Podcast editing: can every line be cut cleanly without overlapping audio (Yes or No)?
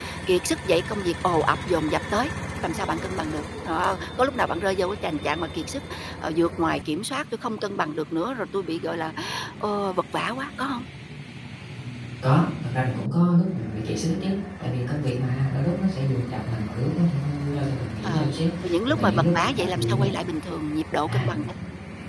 No